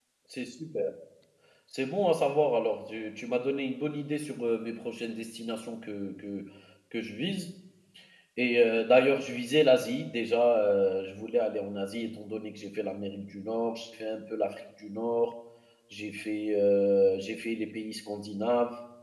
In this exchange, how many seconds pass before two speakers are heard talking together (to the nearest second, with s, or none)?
none